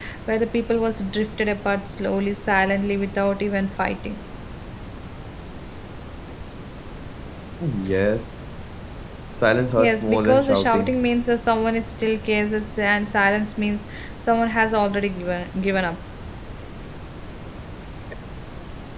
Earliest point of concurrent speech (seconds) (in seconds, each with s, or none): 9.8 s